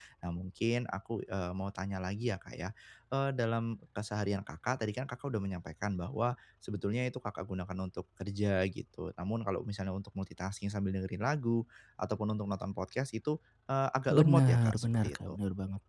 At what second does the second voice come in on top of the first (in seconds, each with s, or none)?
14.1 s